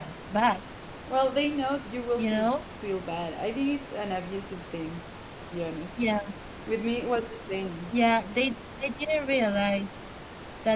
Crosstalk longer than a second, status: none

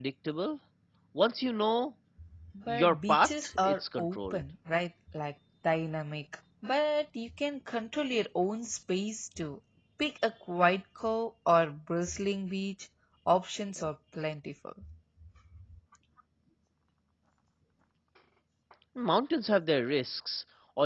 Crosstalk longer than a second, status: present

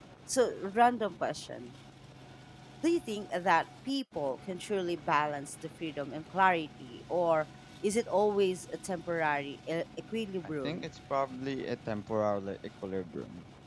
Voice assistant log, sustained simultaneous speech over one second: none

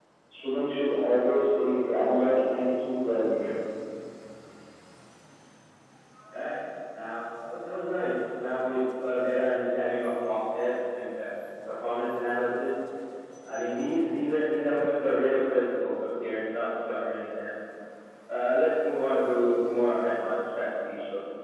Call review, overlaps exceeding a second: none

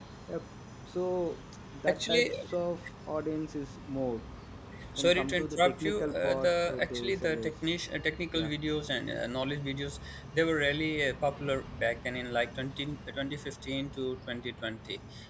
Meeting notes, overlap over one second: present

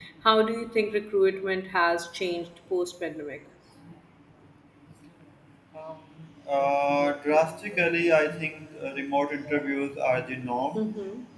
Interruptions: none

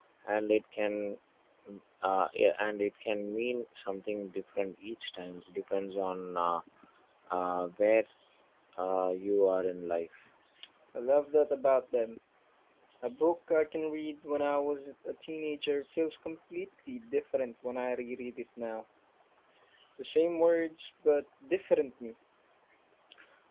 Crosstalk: none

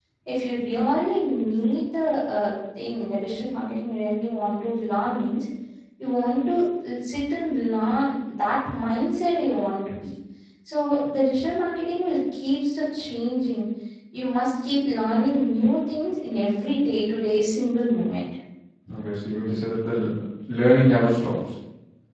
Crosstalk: none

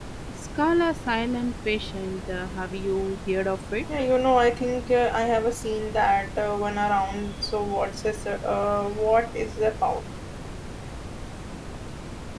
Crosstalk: none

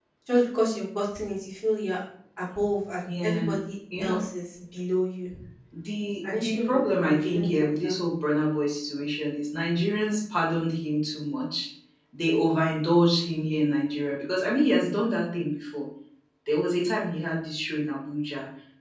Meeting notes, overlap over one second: present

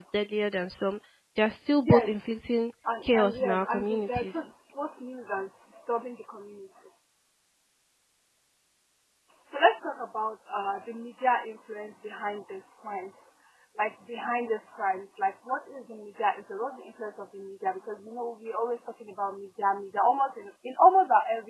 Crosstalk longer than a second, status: present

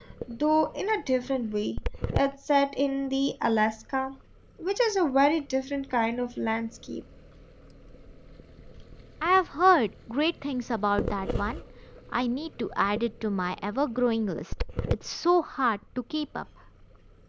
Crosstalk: none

